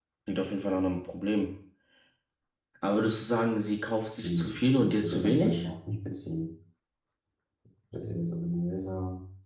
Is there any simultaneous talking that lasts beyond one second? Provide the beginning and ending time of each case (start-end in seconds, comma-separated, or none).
4.2-5.7